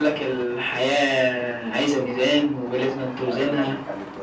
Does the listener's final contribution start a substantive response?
Yes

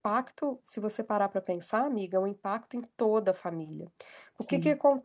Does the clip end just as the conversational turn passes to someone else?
No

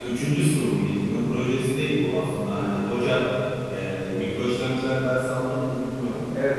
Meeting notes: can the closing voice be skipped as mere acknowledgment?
No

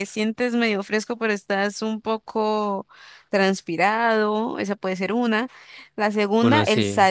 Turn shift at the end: No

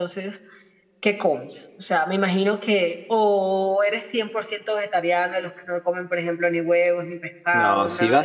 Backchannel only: No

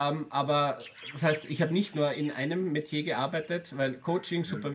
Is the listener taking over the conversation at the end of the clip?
No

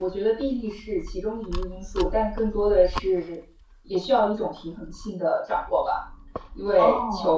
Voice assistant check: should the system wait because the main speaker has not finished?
Yes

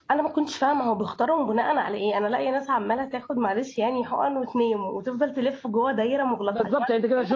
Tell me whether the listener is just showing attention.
No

